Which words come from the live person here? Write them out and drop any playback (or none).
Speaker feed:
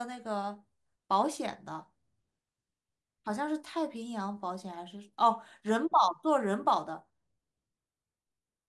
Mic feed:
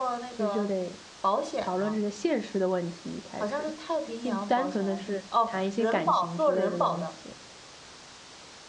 其实就得讨论这些现实的问题，一开始，并不单纯的是谈一些感情之类的东西。